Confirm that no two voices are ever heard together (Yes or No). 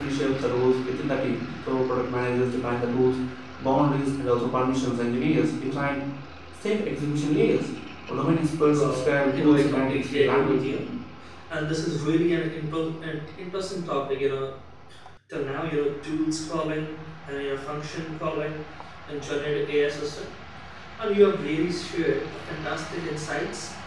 No